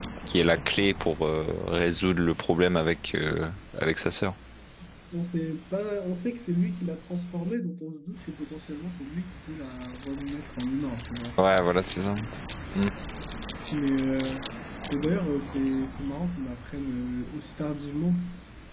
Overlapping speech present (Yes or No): No